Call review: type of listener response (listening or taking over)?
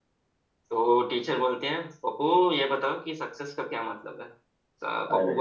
listening